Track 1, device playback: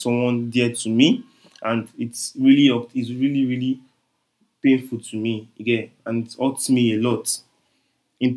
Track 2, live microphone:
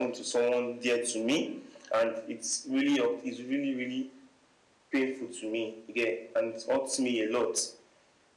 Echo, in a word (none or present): present